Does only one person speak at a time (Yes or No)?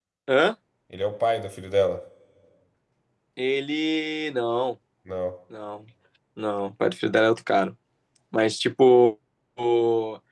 Yes